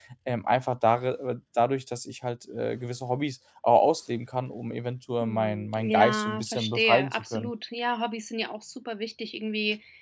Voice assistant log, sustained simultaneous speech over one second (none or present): present